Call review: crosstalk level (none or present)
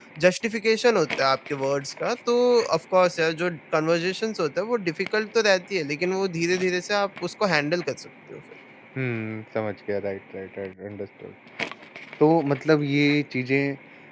none